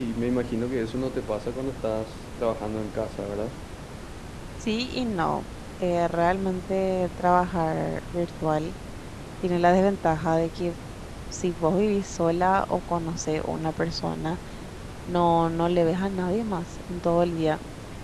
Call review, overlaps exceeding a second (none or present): none